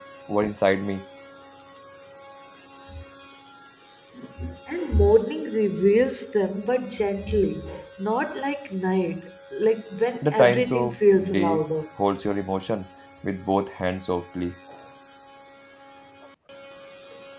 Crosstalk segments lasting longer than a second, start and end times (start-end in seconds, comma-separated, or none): 10.3-11.6